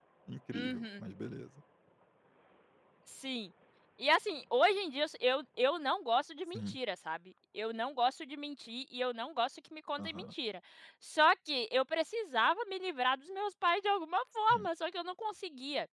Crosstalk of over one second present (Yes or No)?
No